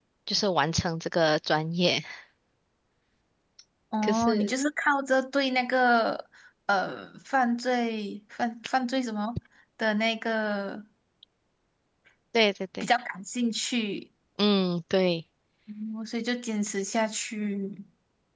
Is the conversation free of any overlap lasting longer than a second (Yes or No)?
Yes